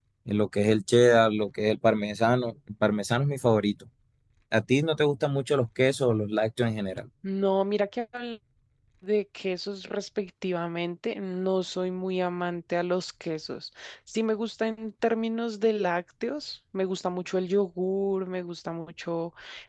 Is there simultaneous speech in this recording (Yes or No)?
No